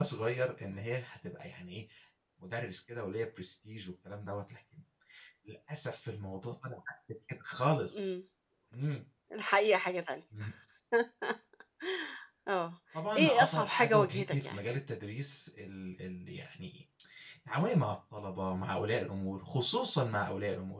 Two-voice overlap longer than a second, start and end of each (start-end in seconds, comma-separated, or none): 13.2-14.6